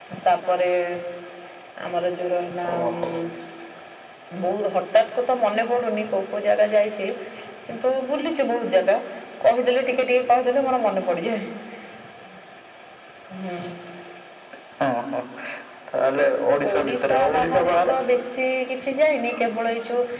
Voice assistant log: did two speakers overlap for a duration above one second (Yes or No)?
Yes